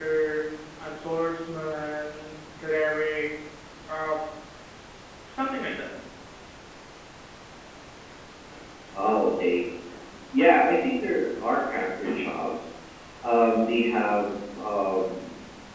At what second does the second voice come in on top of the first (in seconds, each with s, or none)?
none